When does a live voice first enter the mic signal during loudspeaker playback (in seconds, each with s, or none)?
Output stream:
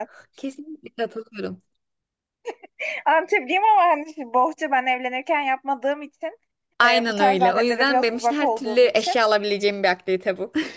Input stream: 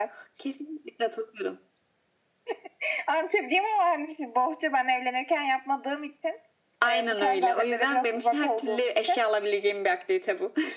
none